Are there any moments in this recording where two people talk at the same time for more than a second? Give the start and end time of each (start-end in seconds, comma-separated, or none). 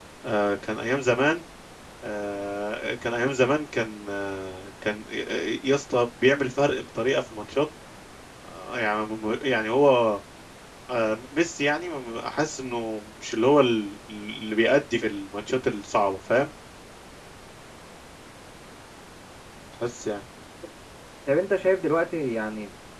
none